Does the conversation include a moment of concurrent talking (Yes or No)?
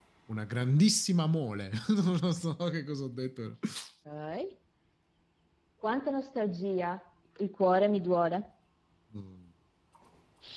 No